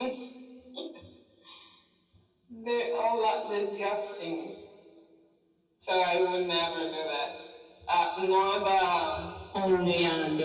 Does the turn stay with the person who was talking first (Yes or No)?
No